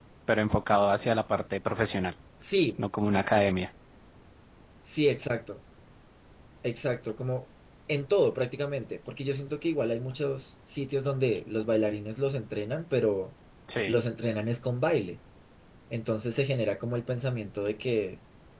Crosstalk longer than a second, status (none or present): none